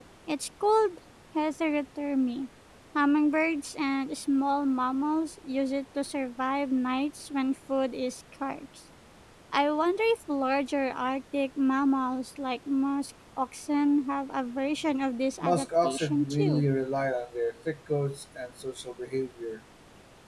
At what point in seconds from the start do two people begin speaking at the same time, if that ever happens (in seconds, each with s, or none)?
15.4 s